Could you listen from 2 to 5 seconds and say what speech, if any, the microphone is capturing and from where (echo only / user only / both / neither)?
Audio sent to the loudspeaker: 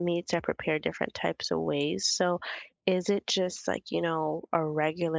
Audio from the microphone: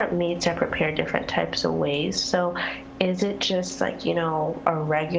echo only